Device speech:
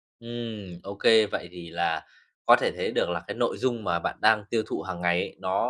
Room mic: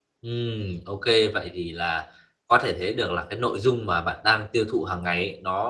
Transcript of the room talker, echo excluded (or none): none